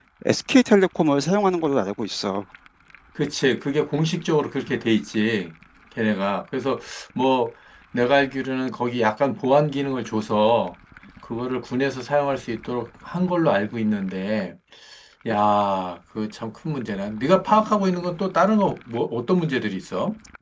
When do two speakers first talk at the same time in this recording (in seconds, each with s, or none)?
none